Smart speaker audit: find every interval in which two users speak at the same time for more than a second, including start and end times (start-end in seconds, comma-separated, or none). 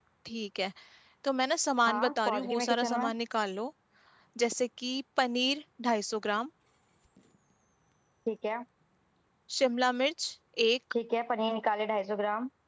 1.9-3.1